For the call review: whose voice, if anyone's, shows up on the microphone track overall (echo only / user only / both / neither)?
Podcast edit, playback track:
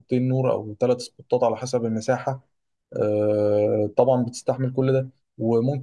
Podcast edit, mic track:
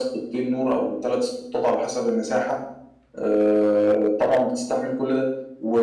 echo only